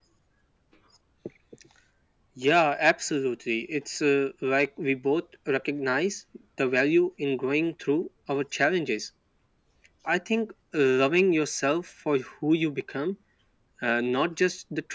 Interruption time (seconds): none

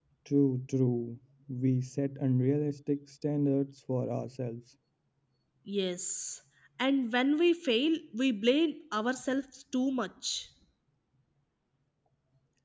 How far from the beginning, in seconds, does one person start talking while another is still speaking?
none

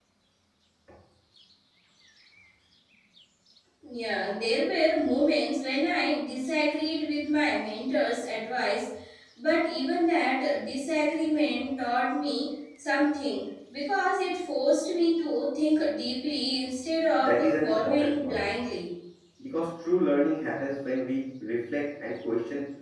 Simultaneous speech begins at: 17 s

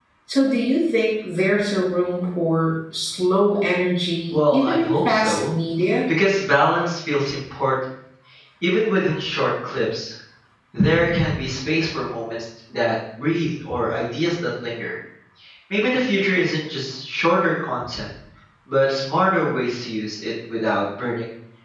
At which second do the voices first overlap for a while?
4 s

